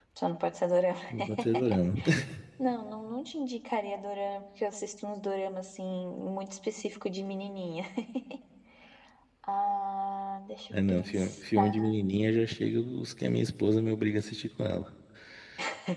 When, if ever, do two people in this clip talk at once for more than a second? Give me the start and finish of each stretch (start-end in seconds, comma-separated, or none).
10.7-11.9